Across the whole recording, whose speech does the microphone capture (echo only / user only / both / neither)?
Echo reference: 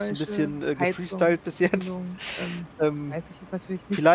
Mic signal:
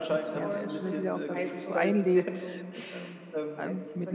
both